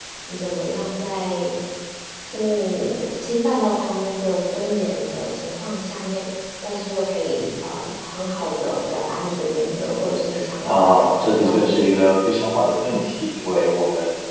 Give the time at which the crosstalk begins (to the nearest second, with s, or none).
11 s